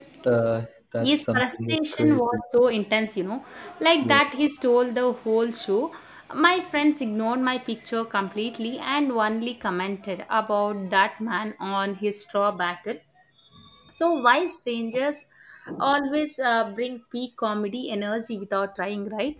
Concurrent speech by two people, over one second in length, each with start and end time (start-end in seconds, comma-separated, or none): 1.0-2.4